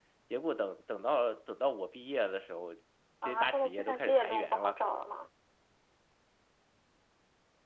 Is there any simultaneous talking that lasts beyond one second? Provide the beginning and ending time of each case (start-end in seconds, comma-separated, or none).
3.3-4.8